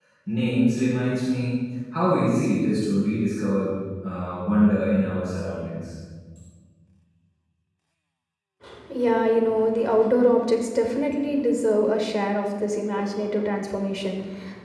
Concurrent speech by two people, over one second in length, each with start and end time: none

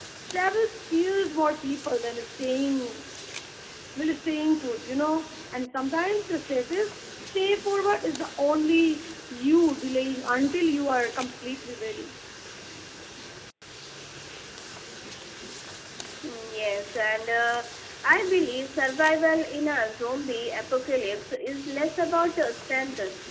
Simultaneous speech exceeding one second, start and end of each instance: none

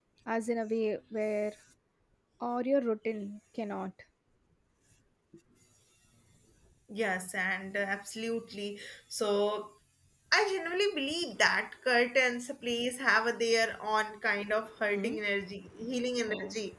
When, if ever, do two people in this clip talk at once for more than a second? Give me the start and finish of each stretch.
none

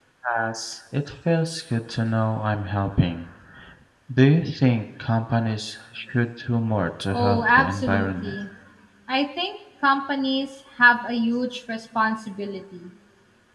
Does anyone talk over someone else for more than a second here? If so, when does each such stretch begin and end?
7.1-8.3

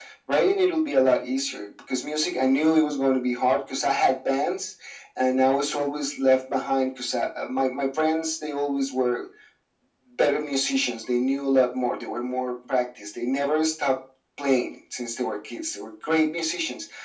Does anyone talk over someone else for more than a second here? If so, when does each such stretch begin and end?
none

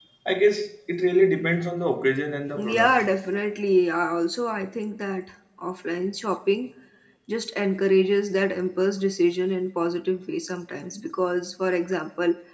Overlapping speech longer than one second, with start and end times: none

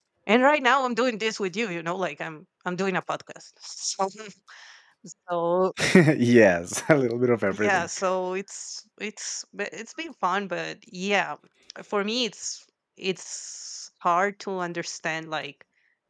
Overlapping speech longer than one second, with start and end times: none

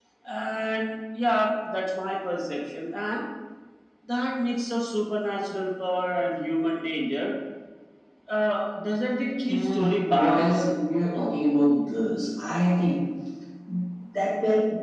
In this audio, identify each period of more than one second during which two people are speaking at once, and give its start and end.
9.5-10.7

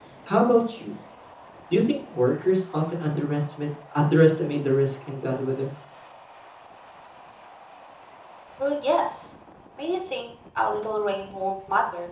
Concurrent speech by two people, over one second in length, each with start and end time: none

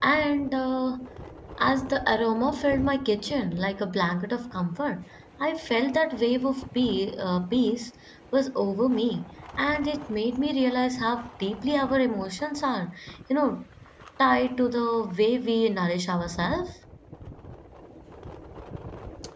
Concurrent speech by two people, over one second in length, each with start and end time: none

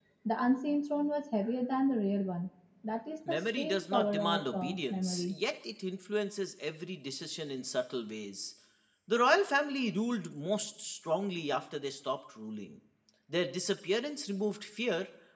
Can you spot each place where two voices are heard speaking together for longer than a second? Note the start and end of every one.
3.3-5.3

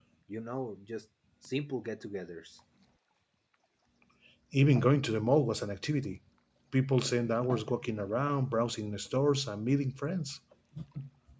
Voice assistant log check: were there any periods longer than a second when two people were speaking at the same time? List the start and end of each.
none

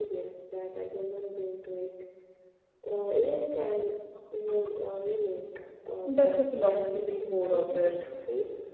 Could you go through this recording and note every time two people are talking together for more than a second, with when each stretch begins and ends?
6.0-7.9

